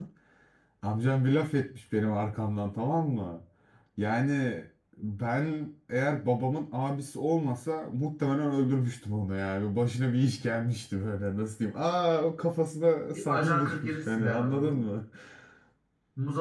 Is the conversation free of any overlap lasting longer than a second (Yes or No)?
No